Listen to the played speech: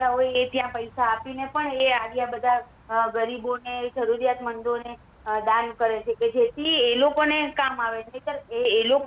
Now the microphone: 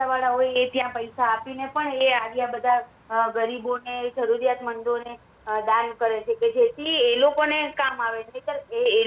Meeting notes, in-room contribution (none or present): none